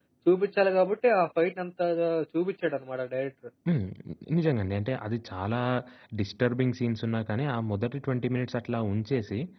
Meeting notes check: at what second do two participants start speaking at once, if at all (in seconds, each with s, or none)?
none